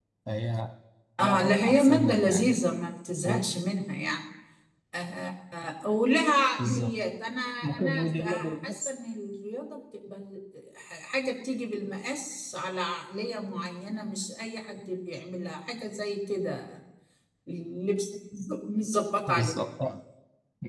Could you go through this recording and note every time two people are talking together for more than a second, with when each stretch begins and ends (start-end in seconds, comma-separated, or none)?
1.2-2.5, 7.6-8.9